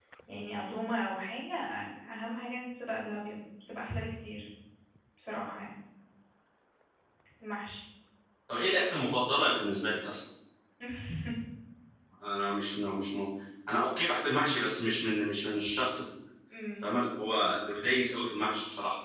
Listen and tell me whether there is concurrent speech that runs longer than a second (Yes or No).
No